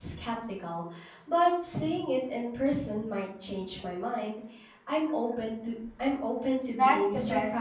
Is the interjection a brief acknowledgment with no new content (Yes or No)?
No